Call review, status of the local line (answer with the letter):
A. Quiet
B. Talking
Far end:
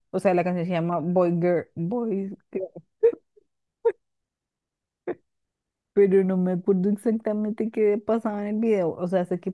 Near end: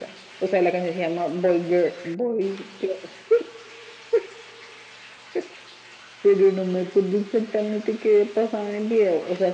A